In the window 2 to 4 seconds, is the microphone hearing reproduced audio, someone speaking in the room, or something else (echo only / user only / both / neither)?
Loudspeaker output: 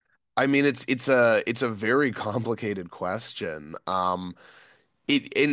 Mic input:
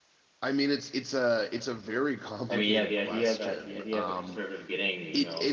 both